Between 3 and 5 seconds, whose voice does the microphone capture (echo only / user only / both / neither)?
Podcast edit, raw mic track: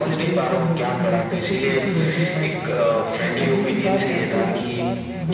both